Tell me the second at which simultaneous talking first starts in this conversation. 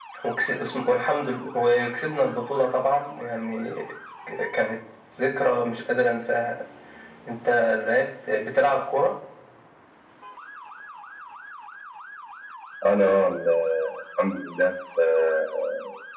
none

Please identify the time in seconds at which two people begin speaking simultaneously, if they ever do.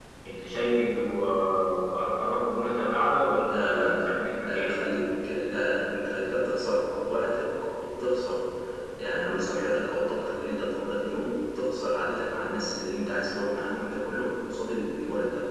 3 s

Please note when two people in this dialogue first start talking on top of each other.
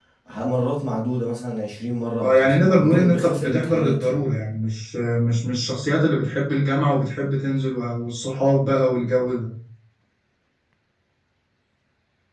2 s

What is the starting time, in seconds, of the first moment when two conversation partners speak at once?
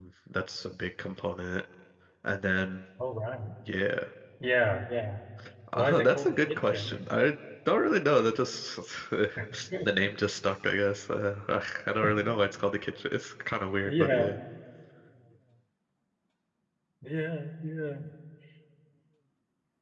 6 s

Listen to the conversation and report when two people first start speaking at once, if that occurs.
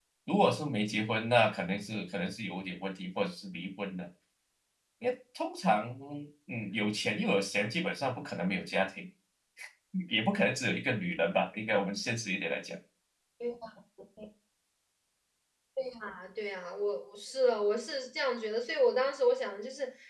none

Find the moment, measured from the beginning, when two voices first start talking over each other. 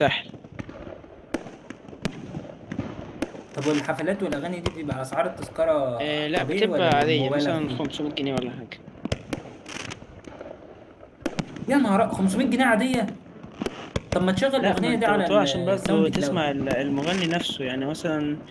6 s

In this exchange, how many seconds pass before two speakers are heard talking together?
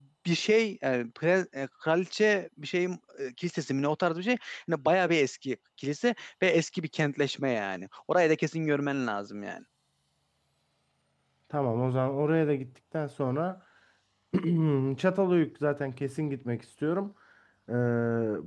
none

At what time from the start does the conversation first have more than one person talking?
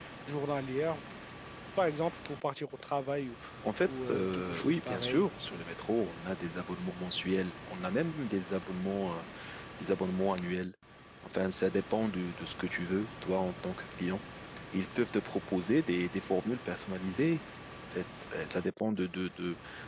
4 s

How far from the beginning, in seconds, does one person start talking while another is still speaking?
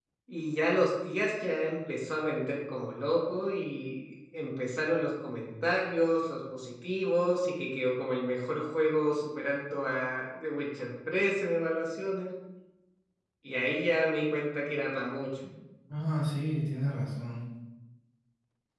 none

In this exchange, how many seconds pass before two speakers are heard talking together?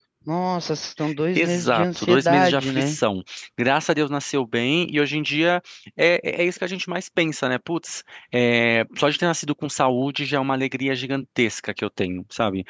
1 s

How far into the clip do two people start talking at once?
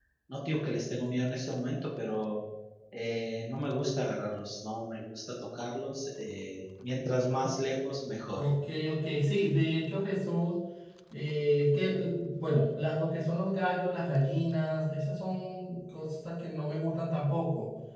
none

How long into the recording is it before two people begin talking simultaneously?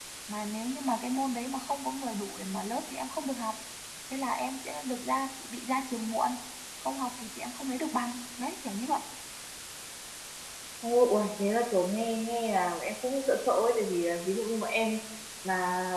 none

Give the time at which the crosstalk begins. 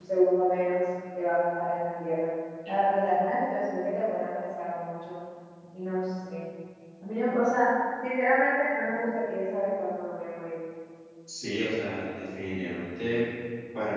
none

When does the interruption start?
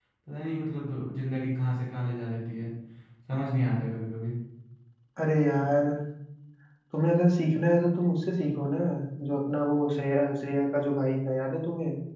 none

